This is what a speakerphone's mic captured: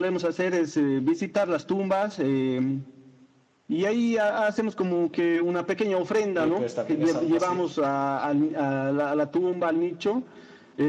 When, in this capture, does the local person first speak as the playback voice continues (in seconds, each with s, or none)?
6.3 s